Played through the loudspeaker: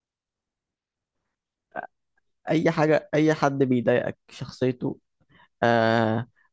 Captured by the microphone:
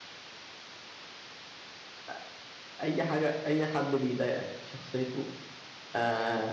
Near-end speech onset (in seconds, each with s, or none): none